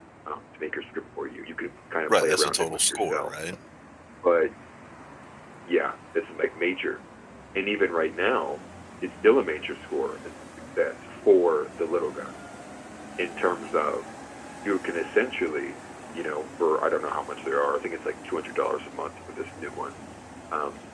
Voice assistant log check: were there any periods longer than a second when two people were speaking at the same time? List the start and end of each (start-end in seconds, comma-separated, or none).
2.1-3.3